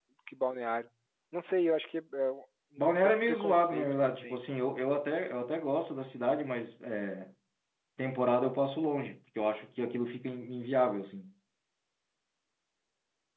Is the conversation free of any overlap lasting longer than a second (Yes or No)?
No